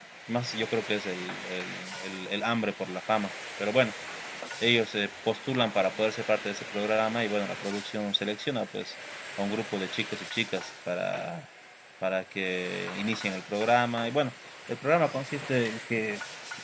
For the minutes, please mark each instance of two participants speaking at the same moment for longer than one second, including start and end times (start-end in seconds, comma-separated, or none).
none